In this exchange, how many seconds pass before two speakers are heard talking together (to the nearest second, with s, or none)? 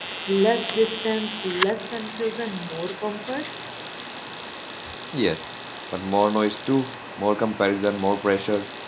none